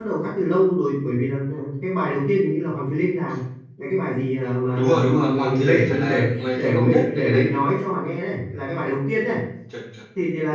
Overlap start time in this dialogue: 4.8 s

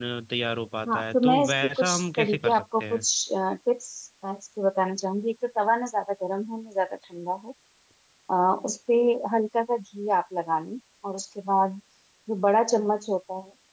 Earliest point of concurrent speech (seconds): 0.9 s

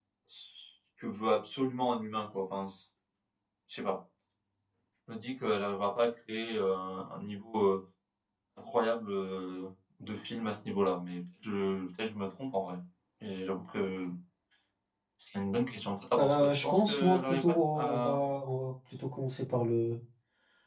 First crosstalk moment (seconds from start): 16.2 s

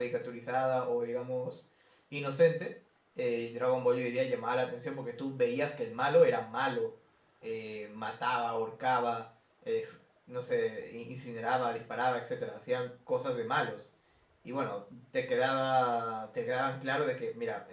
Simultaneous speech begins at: none

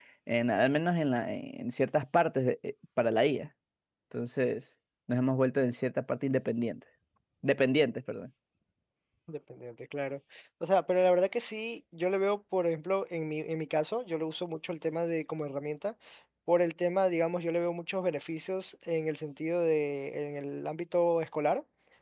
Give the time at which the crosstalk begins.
none

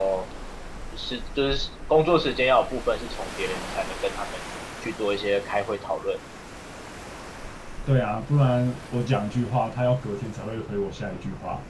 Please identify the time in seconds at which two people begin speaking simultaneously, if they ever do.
none

